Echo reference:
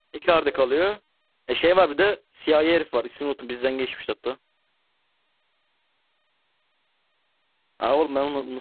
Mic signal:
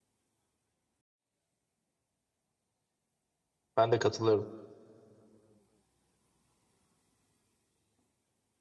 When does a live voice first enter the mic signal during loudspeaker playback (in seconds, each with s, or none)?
3.8 s